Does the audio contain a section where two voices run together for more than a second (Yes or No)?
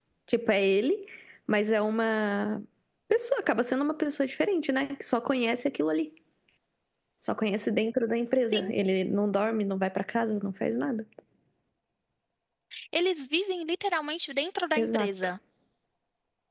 No